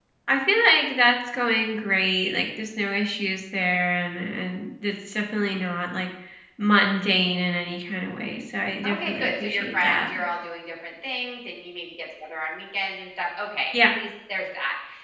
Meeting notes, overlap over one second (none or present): present